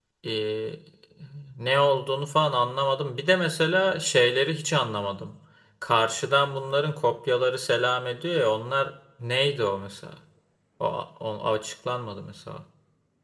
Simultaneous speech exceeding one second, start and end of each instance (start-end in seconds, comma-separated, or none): none